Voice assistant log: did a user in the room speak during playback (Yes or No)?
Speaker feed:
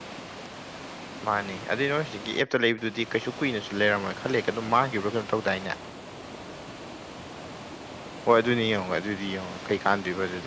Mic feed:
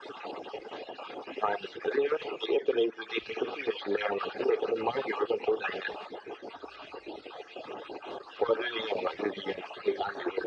No